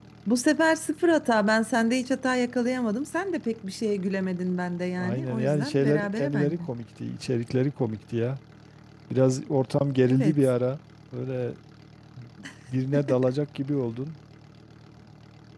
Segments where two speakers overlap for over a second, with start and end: 5.0-6.6

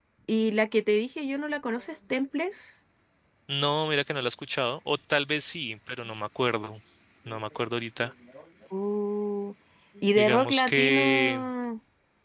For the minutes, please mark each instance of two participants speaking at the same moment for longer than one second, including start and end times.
10.2-11.4

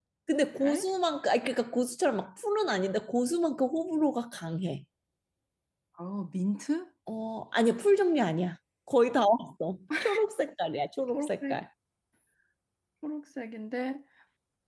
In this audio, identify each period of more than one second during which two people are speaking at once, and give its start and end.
none

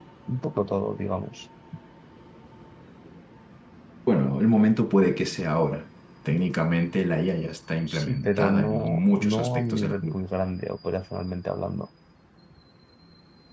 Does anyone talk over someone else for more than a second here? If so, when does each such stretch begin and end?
7.9-10.1

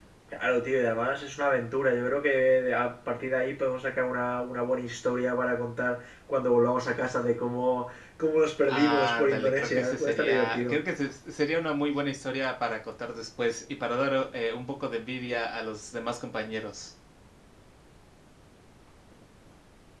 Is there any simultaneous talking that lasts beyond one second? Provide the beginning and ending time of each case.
8.7-10.8

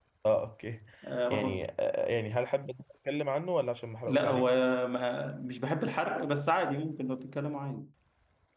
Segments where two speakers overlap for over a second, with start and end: none

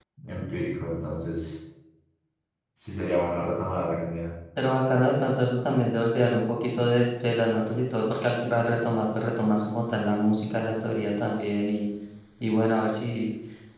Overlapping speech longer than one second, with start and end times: none

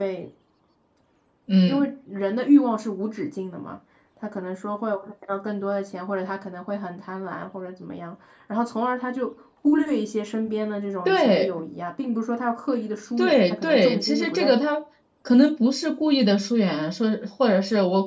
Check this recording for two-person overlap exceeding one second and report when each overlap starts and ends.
13.2-14.6

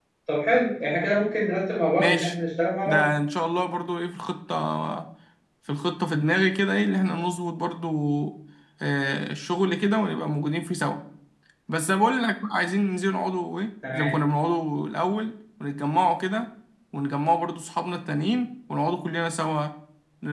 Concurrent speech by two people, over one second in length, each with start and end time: none

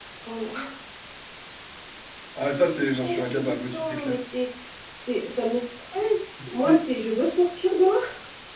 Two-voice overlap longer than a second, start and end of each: 2.7-4.1

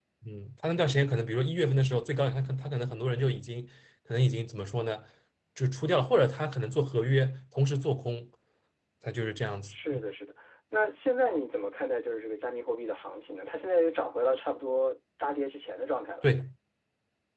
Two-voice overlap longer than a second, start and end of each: none

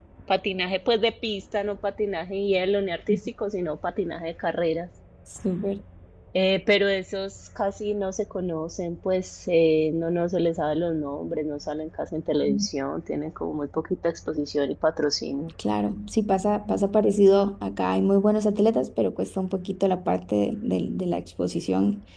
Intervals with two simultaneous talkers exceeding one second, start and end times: none

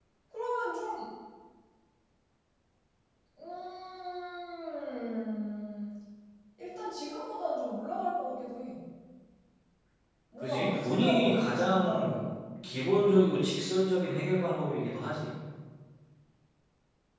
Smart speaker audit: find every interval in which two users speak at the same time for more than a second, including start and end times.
10.4-12.2

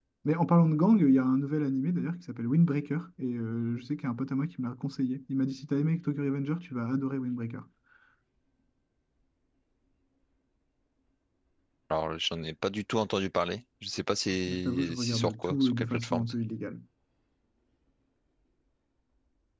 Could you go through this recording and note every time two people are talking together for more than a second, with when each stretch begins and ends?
14.5-16.3

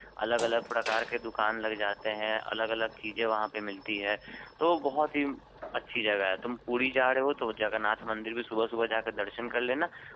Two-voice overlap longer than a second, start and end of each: none

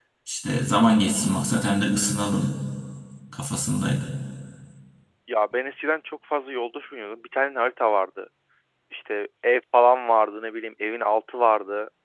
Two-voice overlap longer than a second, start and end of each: none

